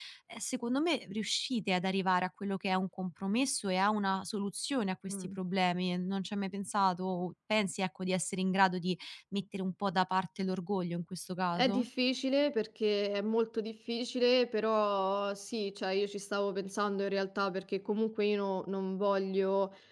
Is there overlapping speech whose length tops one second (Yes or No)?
No